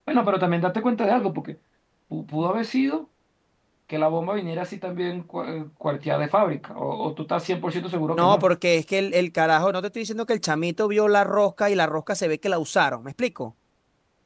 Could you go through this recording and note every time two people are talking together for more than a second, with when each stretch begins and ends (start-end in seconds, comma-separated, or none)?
none